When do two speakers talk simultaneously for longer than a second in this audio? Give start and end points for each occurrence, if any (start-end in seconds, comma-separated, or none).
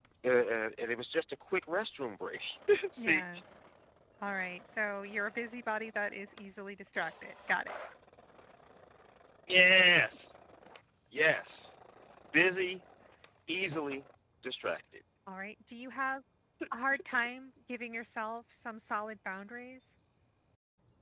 none